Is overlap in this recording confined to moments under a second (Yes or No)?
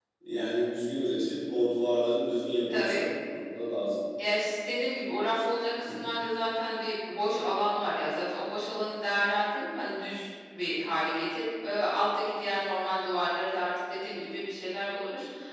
Yes